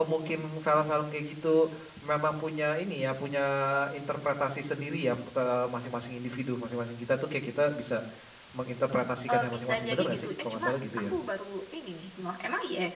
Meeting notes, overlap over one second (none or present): present